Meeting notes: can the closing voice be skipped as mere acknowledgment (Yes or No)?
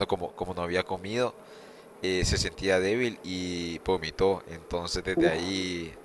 Yes